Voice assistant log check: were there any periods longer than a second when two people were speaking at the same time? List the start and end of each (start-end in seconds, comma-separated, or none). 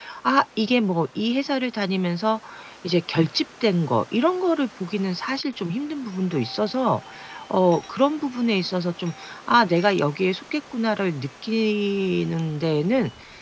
none